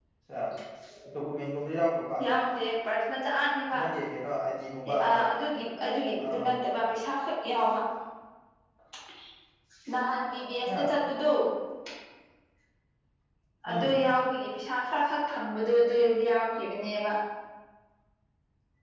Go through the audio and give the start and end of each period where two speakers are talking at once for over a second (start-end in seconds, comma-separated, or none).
none